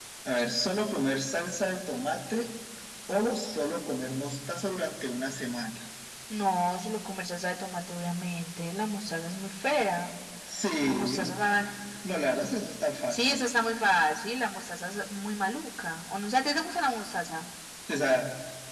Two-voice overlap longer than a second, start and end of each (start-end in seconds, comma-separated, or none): none